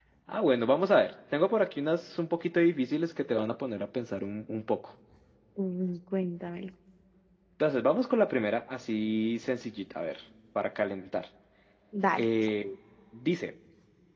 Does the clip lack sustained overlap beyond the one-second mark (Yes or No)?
Yes